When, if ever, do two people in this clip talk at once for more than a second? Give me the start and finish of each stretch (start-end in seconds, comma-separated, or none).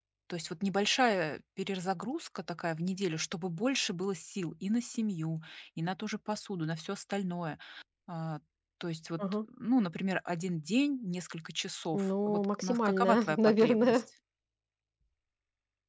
11.9-14.0